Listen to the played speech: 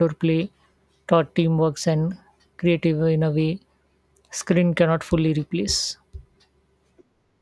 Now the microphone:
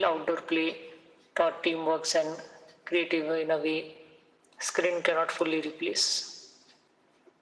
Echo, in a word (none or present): present